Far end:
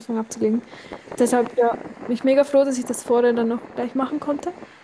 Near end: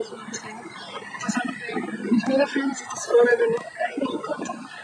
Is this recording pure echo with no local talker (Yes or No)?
Yes